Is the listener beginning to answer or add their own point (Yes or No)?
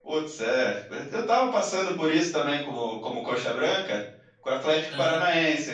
No